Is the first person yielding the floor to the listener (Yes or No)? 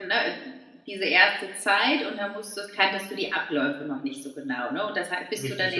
No